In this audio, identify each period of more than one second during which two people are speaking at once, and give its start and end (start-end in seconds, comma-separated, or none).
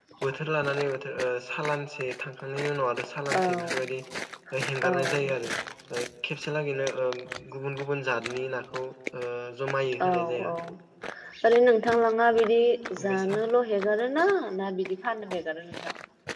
none